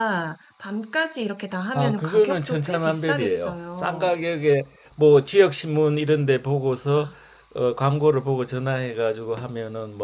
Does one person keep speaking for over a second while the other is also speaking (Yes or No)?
Yes